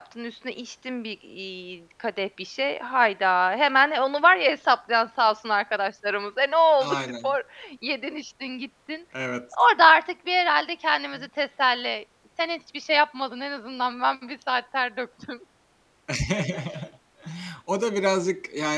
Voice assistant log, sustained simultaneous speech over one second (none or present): none